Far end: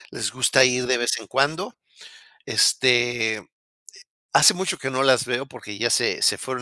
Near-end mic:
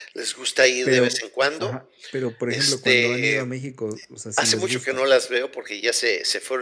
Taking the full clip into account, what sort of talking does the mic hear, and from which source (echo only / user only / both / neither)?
both